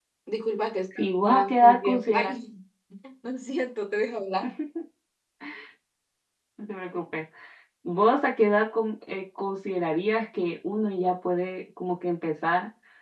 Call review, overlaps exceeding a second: present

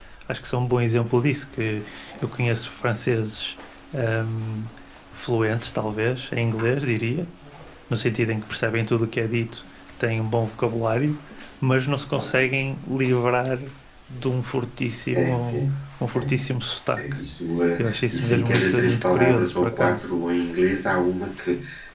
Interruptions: present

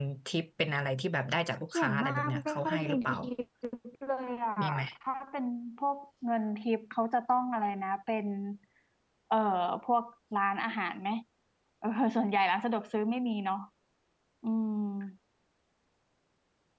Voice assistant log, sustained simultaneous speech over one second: present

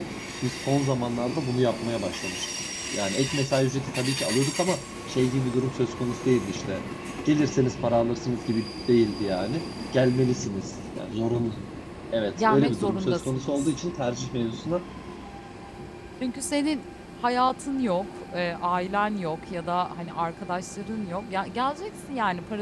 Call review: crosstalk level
present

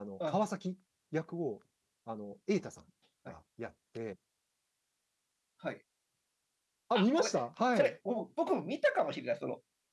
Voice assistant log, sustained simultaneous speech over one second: none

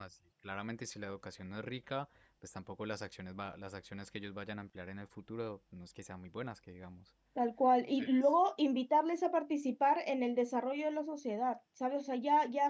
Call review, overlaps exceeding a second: none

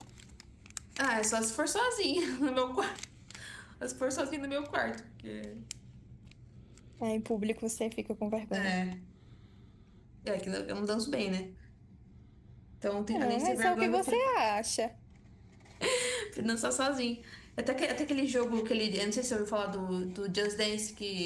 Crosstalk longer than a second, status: present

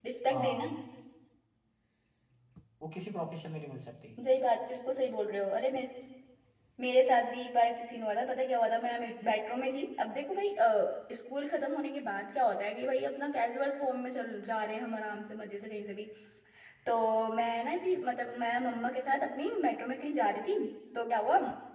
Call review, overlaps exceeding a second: none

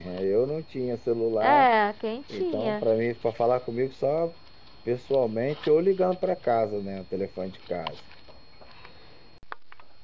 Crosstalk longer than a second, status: none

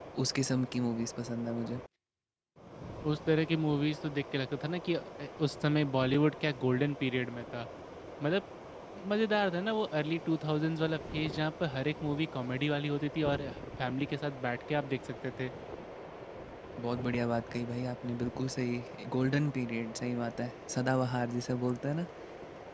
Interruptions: none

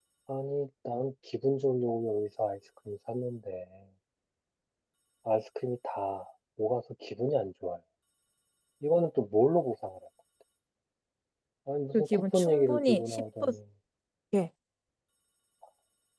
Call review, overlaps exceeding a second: present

